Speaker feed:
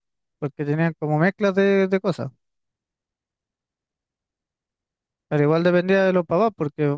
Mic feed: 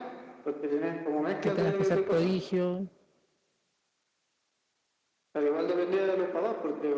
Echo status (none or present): present